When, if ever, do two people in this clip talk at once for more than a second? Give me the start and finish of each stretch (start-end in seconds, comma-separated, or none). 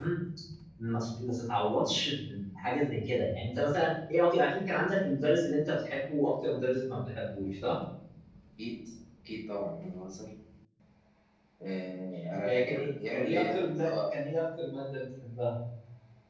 12.4-13.9